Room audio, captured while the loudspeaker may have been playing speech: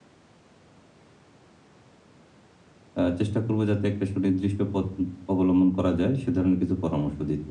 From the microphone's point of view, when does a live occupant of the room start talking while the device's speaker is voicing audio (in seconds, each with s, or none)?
3.0 s